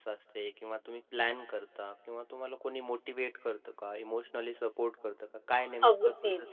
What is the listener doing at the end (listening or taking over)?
taking over